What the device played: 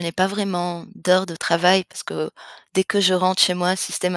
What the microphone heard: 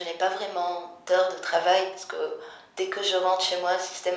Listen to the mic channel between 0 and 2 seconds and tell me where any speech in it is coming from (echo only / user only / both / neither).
echo only